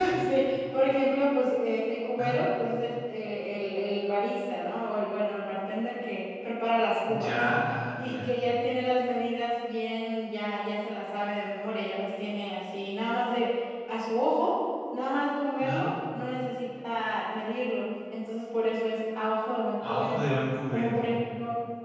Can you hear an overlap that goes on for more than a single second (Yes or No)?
No